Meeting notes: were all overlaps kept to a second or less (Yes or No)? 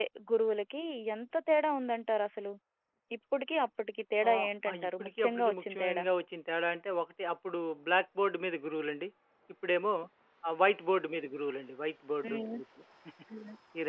No